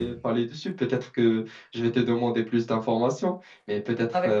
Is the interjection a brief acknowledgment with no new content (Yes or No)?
Yes